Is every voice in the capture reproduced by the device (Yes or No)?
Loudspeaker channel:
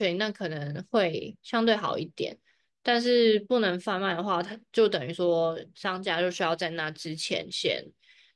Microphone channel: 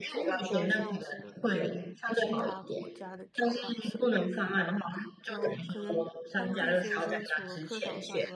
No